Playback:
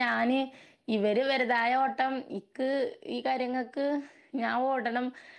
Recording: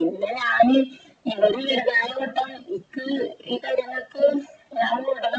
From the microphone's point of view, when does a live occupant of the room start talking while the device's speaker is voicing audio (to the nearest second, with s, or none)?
none